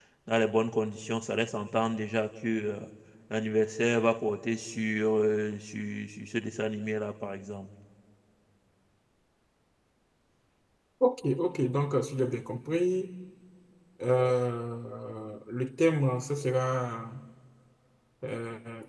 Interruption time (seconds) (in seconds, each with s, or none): none